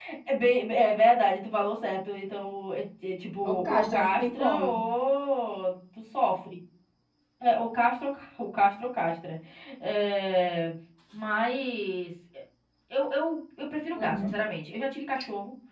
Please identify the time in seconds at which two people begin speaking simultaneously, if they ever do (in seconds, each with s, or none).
3.4 s